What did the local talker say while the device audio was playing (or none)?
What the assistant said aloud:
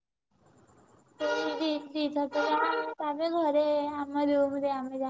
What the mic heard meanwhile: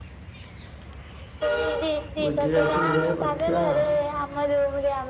ଗୁଜୁରାତି ଫୁଜୁରା ପଡିଥିବ ଆଉ।